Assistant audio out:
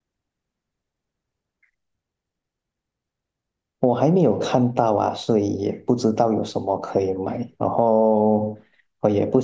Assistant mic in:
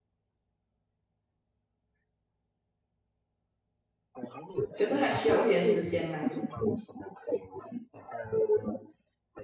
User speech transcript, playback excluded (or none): 可是还需要一点时间嘛。